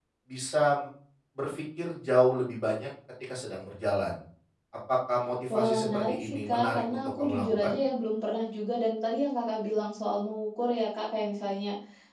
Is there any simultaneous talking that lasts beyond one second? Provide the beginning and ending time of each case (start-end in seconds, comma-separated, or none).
5.5-7.8